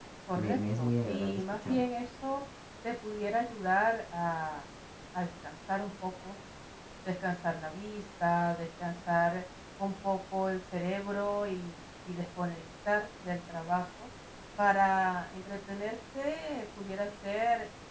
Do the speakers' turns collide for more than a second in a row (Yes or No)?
Yes